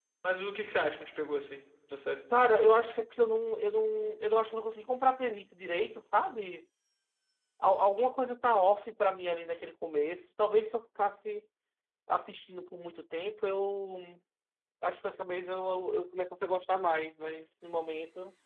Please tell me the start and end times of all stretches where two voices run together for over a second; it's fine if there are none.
none

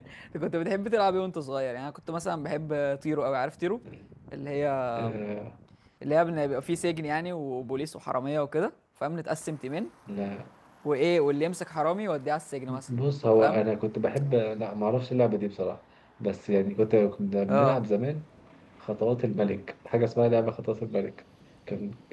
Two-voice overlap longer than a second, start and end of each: none

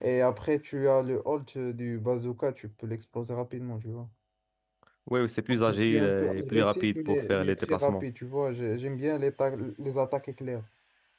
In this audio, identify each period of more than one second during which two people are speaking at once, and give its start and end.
5.7-8.0

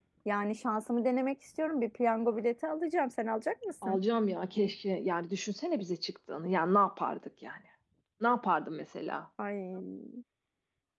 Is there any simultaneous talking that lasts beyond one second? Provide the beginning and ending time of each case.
none

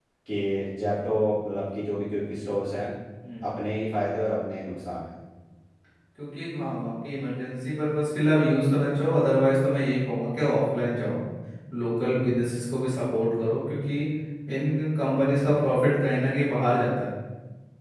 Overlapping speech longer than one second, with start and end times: none

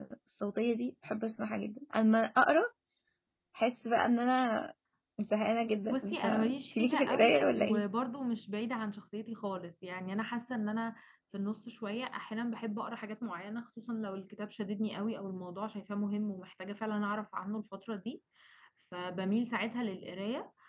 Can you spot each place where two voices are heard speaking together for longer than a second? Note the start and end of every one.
5.9-7.8

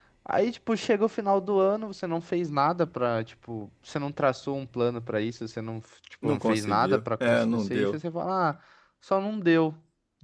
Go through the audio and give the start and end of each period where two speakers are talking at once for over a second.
6.2-8.0

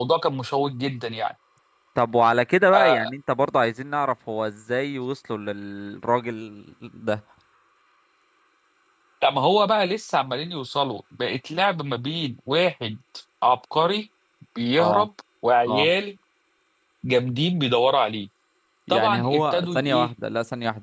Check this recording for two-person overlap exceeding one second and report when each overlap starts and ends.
18.9-20.1

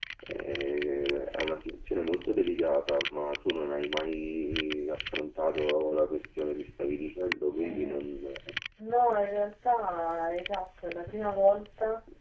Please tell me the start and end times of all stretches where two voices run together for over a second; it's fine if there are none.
none

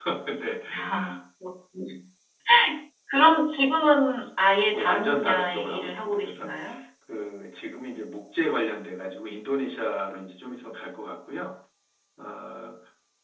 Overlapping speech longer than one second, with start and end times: 4.7-6.5

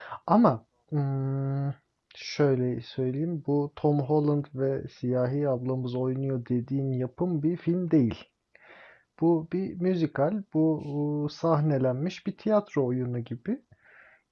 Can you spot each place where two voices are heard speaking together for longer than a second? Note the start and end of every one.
none

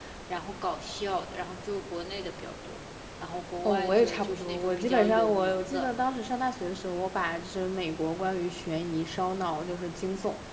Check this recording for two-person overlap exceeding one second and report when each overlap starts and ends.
3.6-5.9

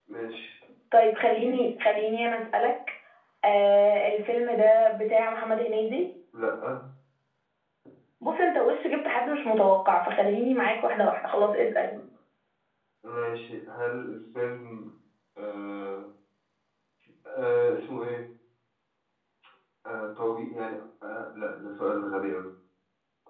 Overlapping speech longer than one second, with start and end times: none

